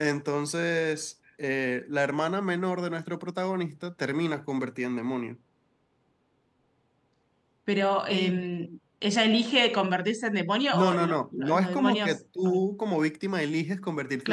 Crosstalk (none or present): present